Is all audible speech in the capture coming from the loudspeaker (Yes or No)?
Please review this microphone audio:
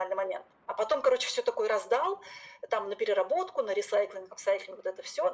Yes